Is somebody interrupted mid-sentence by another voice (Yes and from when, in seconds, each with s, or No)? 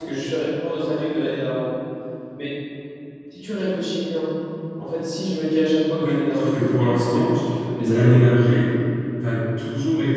Yes, from 6.0 s